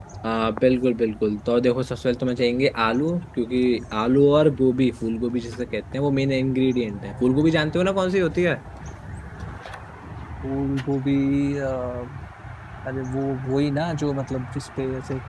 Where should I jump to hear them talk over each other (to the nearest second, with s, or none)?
none